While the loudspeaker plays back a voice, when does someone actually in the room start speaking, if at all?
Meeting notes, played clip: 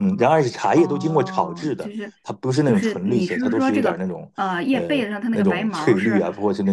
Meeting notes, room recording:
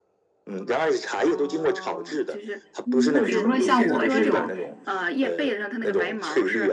3 s

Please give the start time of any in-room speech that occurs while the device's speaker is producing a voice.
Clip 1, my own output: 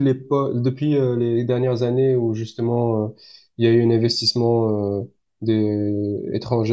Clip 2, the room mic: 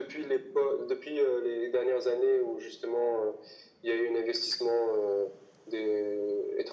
none

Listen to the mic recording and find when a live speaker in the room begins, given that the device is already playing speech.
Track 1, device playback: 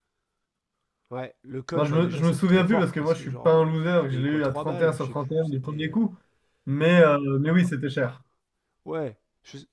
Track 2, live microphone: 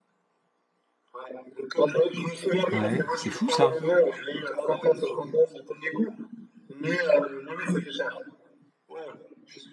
3 s

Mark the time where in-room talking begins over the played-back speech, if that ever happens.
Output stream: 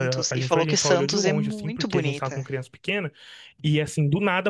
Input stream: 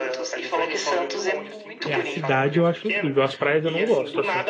2 s

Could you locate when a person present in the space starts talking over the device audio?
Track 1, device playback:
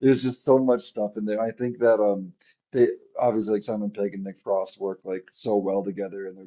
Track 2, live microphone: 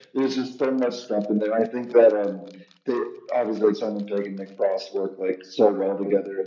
none

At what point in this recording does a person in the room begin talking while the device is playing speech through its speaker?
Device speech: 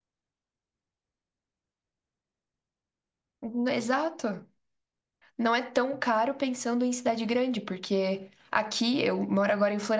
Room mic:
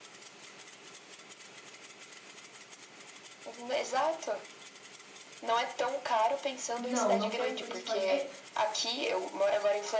7 s

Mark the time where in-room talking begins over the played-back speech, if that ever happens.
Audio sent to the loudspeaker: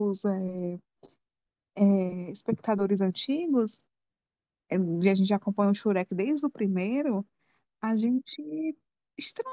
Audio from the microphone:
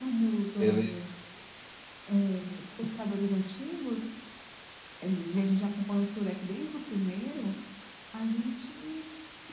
1 s

